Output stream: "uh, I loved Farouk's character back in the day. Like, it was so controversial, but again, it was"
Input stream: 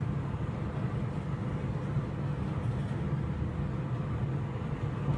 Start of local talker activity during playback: none

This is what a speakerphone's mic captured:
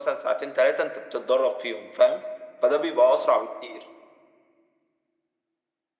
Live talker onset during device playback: none

